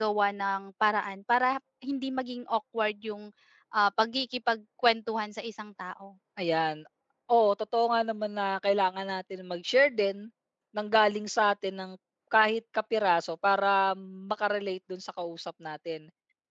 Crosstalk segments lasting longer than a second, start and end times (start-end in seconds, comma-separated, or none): none